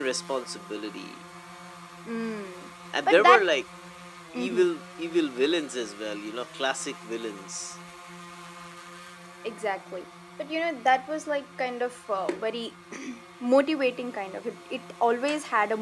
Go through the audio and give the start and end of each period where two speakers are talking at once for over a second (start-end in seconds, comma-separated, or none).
none